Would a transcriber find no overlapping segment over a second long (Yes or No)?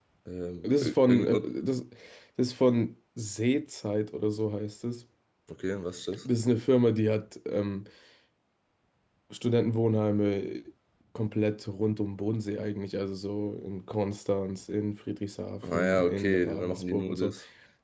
No